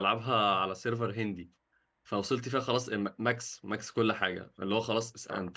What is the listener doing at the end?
listening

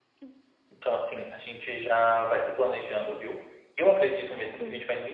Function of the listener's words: listening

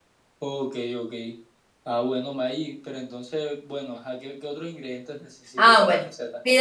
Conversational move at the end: taking over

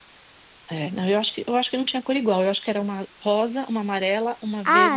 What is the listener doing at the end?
taking over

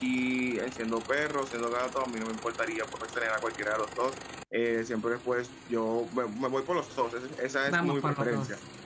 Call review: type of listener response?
taking over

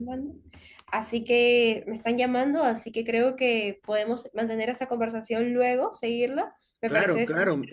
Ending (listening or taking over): taking over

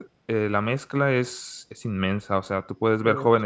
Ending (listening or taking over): listening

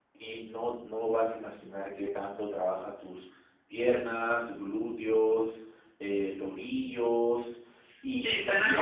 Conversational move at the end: taking over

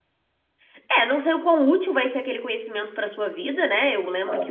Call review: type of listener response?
listening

